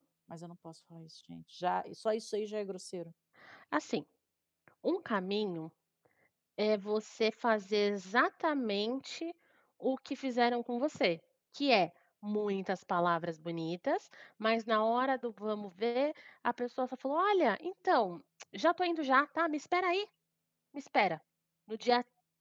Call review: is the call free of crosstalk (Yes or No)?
Yes